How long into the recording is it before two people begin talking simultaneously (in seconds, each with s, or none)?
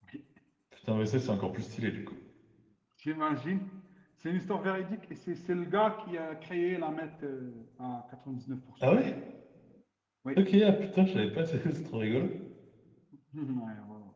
none